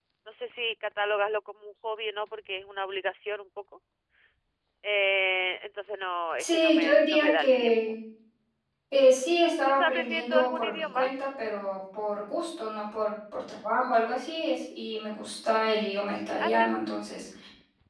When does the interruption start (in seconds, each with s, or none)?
6.4 s